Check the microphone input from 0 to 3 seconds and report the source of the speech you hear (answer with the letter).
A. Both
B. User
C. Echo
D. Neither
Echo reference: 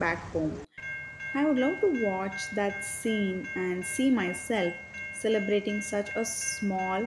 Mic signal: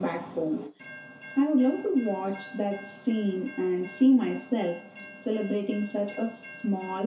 C